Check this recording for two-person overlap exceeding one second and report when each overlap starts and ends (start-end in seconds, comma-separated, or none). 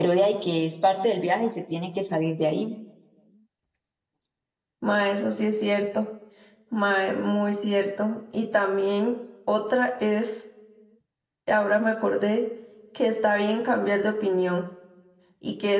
none